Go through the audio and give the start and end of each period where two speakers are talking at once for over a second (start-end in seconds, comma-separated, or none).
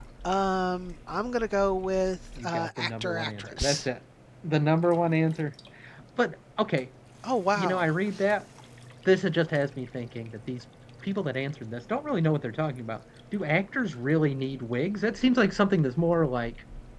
2.4-3.9